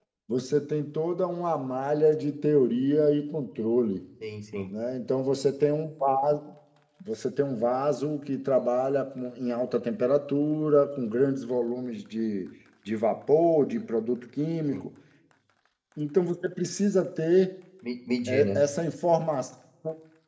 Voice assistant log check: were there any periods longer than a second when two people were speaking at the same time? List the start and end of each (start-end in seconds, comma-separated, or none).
none